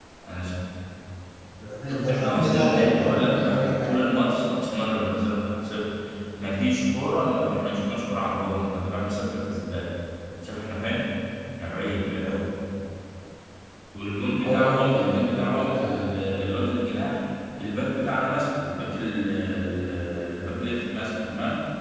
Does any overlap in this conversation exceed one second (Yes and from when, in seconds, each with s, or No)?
Yes, from 1.9 s